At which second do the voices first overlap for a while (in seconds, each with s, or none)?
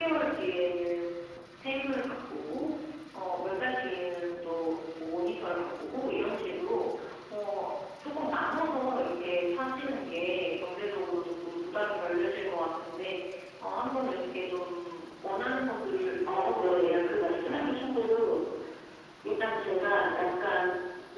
16.3 s